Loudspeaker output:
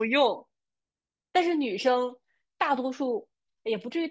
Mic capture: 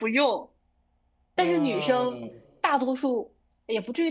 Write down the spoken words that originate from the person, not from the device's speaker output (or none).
嗯